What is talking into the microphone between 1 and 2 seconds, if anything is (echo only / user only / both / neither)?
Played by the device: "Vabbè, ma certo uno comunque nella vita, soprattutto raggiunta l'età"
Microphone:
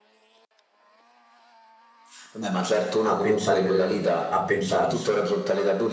neither